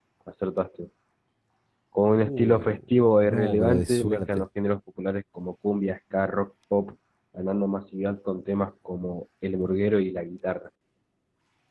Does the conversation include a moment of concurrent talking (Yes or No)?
Yes